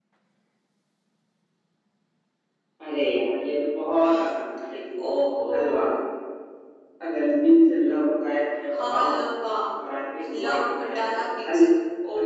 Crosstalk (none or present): present